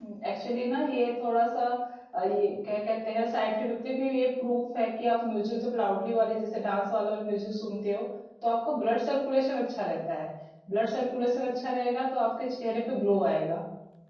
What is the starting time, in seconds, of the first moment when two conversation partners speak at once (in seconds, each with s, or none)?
none